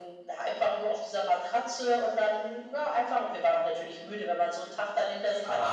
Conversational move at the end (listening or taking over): taking over